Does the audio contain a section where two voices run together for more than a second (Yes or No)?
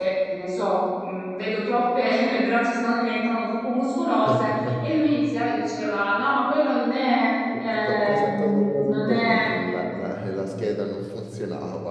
Yes